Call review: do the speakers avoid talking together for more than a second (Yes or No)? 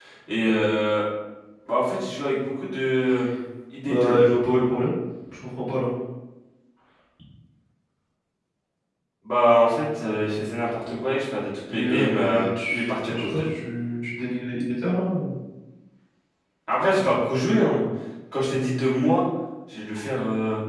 No